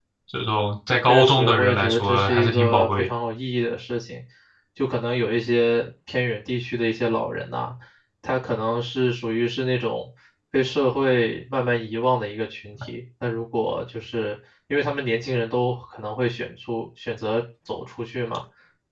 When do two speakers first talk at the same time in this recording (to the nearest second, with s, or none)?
1 s